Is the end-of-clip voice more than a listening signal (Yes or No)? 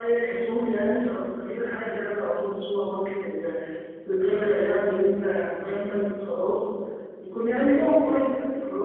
No